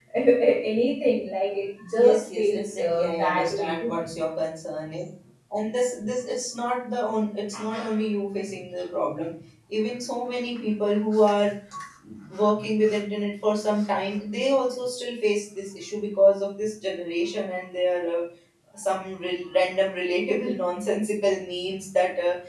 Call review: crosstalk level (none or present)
present